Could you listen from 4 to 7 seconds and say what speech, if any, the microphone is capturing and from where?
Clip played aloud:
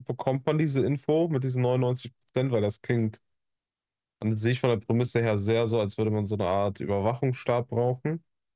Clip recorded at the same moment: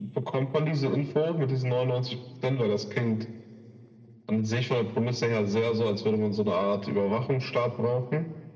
echo only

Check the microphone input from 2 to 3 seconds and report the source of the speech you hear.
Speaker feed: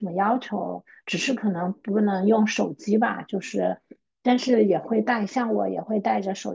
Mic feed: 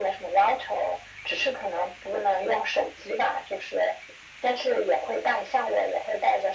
echo only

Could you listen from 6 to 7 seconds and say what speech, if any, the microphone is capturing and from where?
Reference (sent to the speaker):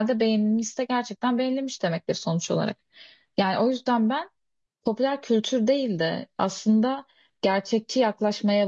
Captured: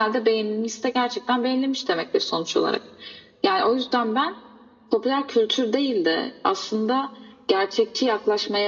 echo only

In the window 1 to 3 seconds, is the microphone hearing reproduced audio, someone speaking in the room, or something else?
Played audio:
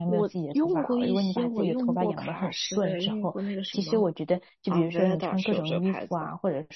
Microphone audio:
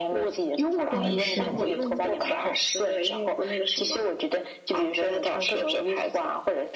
both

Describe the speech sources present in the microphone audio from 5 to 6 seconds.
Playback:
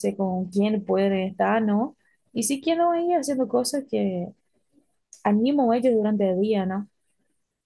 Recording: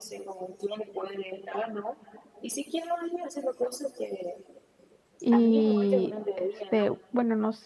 both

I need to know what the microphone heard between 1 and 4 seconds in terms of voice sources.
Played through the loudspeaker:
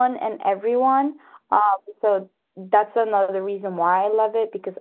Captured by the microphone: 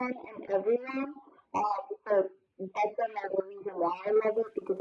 echo only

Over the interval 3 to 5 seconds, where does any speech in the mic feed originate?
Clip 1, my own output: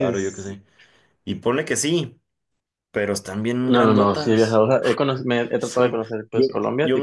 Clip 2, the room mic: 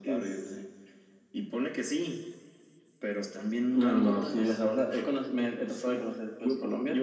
echo only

